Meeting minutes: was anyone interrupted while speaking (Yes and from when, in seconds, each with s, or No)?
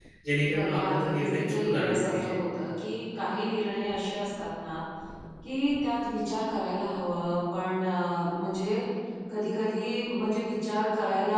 Yes, from 0.5 s